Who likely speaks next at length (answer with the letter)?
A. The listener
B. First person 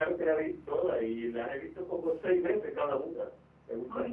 A